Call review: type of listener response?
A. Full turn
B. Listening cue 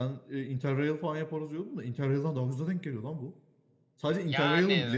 B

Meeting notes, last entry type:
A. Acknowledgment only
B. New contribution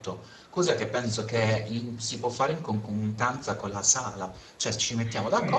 A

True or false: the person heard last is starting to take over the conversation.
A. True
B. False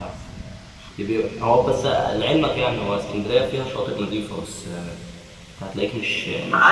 A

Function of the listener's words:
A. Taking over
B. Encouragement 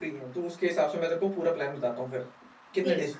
A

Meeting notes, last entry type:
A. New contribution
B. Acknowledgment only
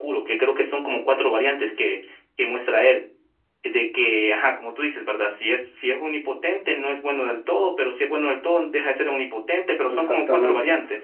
A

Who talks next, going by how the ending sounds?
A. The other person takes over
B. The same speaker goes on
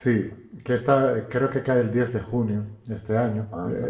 B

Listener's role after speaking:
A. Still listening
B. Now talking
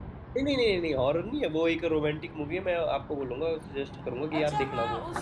B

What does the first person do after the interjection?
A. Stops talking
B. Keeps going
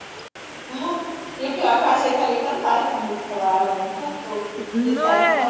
B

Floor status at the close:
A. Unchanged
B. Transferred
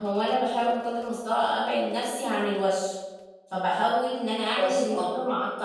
A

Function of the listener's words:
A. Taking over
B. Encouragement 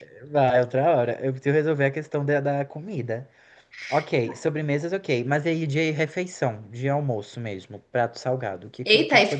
A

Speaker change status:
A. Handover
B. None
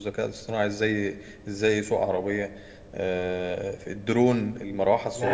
A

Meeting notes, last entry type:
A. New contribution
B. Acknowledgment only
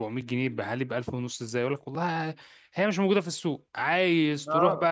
B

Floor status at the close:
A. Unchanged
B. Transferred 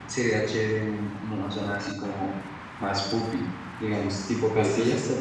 B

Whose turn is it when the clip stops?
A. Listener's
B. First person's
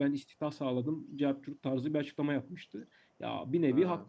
B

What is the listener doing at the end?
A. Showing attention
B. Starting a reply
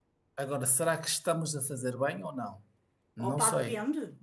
B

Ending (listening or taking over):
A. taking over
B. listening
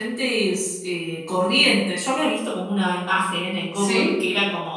B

